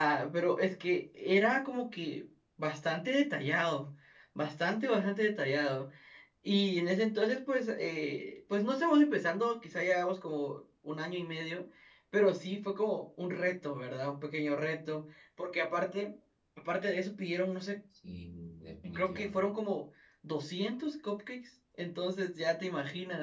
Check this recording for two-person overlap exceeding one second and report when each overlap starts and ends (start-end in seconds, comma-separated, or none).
none